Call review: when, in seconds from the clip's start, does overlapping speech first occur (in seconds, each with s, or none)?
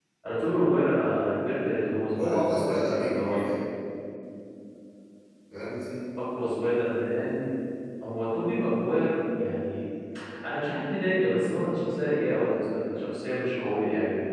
2.1 s